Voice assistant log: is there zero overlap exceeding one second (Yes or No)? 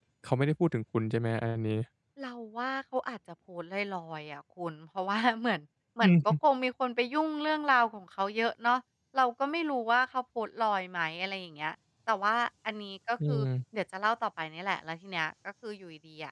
Yes